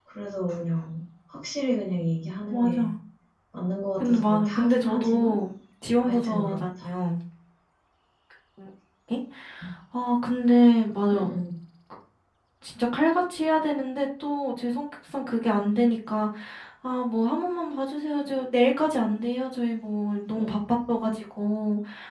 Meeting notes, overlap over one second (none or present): present